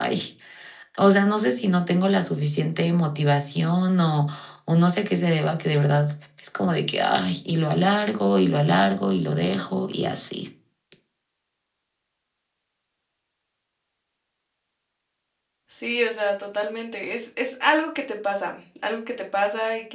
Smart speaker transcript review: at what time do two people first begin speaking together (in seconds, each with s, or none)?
none